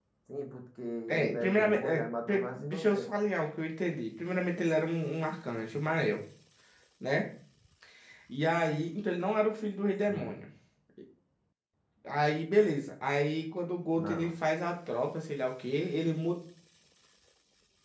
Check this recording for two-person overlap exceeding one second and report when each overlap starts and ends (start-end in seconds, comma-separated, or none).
1.1-3.0